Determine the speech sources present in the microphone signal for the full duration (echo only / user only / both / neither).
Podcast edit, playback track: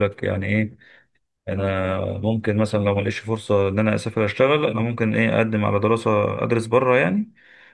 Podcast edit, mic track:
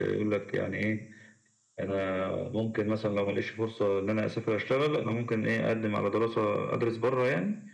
echo only